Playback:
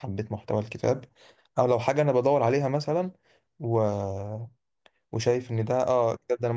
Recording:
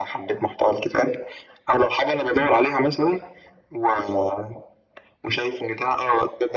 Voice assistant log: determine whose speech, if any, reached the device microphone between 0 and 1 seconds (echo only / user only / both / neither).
echo only